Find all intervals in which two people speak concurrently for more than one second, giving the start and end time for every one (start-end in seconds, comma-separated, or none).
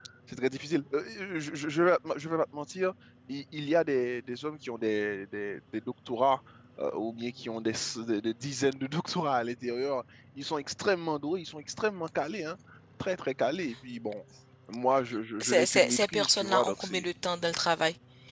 15.4-17.1